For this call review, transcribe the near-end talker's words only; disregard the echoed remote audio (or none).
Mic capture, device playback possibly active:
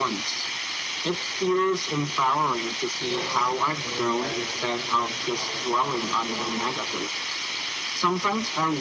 Yes, I mean that mindset has helped me a lot.